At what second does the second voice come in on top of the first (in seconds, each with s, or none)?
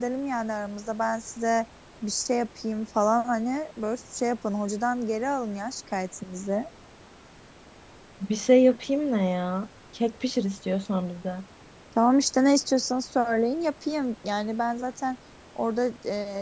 none